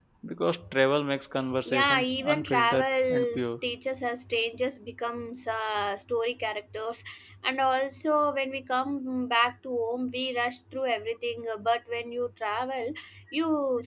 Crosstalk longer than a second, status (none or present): present